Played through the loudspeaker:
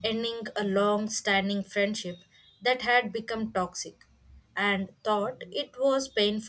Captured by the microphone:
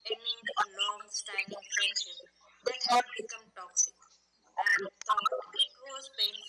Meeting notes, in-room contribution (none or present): none